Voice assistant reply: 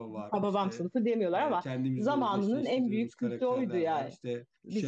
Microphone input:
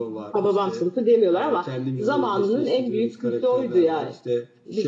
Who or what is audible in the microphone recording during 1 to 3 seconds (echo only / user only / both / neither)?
echo only